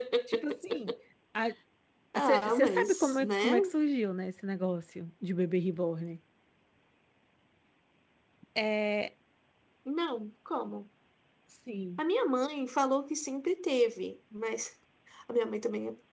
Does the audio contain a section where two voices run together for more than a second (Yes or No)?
Yes